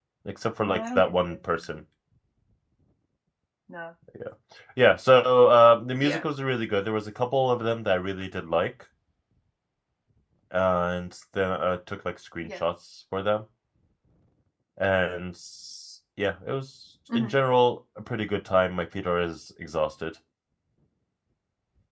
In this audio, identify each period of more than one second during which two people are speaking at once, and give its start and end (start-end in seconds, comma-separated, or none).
0.6-1.8